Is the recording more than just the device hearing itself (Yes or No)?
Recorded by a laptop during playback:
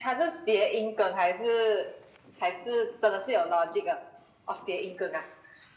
No